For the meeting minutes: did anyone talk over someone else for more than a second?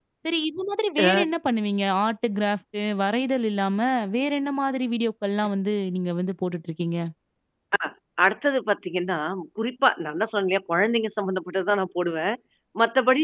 No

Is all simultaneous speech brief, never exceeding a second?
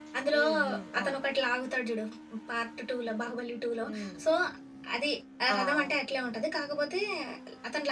Yes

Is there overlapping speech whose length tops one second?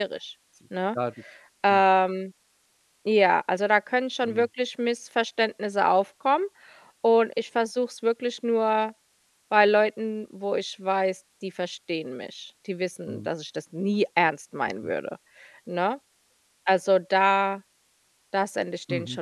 No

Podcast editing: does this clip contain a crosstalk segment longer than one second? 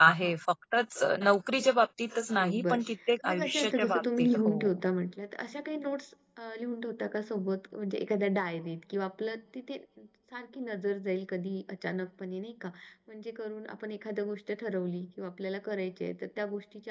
Yes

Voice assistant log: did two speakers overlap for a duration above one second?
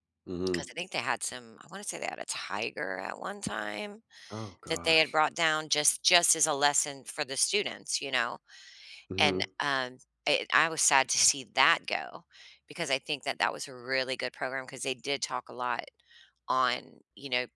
No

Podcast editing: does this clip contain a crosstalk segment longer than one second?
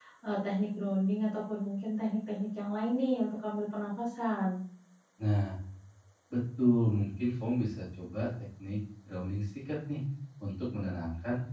No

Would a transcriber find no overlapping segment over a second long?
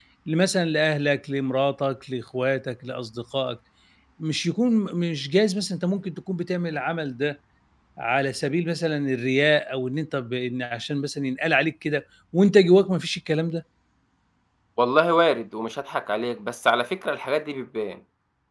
Yes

